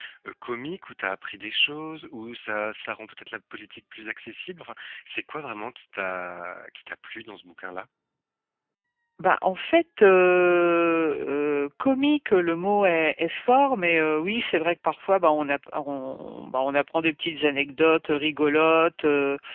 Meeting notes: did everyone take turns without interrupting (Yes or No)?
Yes